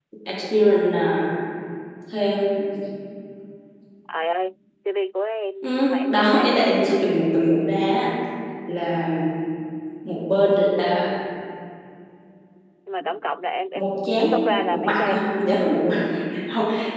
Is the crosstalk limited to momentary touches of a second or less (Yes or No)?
No